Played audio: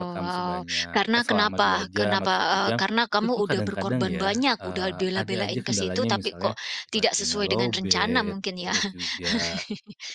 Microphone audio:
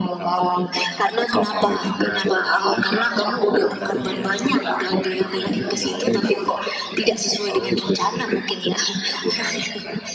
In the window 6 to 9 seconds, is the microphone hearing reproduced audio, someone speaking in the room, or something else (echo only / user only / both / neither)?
echo only